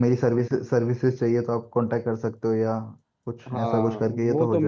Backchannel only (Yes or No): No